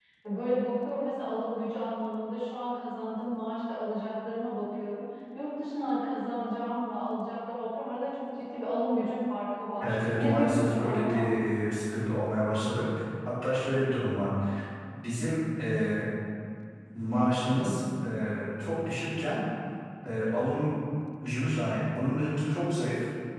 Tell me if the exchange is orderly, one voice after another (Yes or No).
No